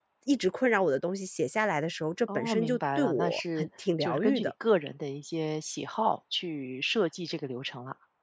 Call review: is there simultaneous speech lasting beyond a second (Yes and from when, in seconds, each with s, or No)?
Yes, from 2.3 s